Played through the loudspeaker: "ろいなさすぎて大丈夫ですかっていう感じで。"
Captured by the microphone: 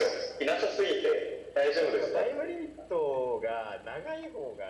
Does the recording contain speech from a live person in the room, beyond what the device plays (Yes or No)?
Yes